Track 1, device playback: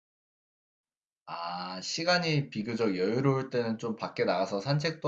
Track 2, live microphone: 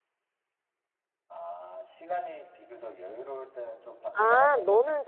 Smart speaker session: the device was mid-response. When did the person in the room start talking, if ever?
4 s

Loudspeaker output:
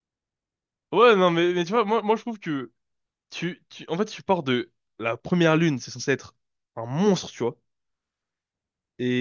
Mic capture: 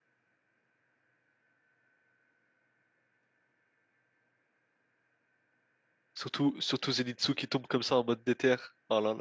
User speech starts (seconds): 6 s

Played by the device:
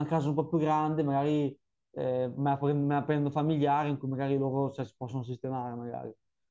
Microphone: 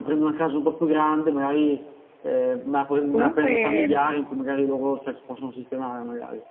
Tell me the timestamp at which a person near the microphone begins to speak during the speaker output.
3 s

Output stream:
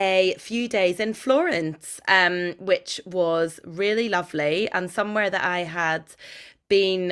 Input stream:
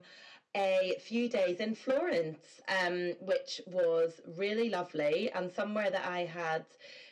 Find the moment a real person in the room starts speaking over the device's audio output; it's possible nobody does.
none

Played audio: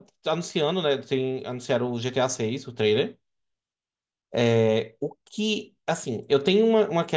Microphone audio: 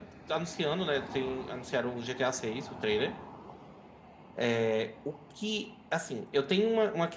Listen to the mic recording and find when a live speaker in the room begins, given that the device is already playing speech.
none

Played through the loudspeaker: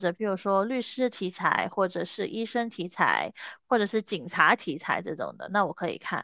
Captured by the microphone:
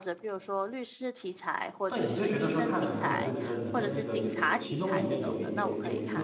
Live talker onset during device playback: 2 s

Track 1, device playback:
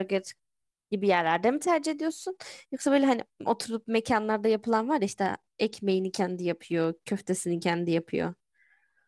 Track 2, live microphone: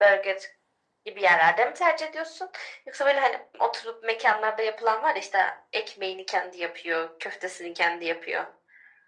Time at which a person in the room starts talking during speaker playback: none

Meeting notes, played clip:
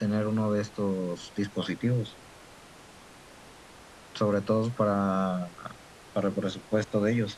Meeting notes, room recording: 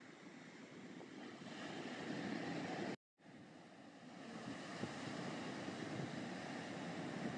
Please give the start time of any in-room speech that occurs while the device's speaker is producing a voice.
none

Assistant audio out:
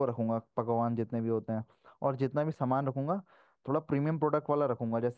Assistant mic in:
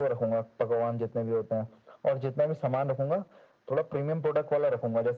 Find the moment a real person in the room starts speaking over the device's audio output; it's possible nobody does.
none

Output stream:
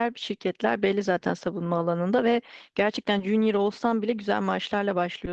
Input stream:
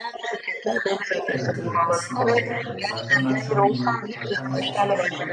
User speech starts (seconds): 1 s

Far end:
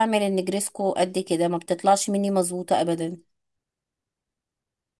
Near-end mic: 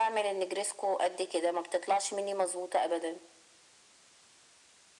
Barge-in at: none

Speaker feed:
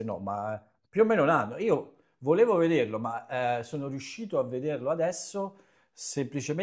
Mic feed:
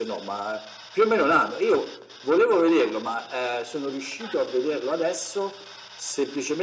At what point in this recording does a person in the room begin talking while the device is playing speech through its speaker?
none

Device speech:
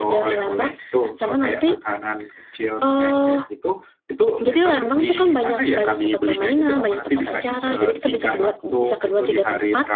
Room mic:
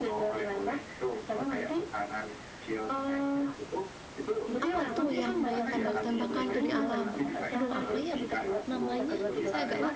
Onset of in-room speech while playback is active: 5 s

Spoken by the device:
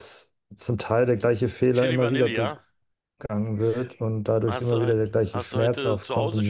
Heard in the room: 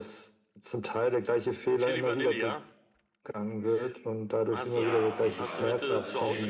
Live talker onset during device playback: 5 s

